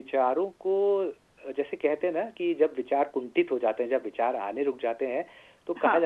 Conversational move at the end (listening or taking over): listening